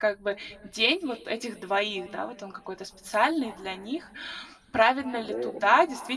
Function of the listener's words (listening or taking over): listening